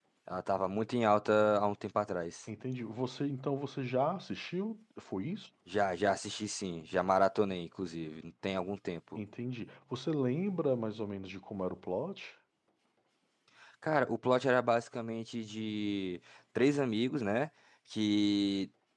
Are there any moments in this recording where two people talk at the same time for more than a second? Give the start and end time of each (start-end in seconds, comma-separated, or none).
none